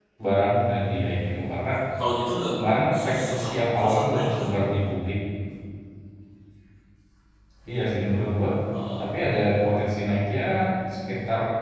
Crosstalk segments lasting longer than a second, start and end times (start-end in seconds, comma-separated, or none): 2.9-4.5